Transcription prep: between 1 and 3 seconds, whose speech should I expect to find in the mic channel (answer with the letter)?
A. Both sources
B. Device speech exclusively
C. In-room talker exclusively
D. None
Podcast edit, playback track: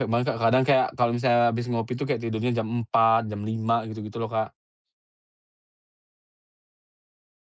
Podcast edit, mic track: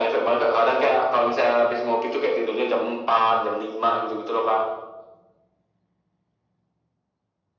B